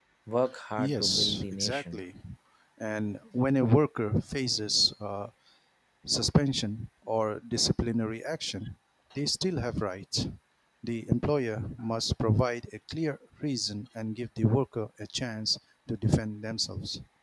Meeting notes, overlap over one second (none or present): present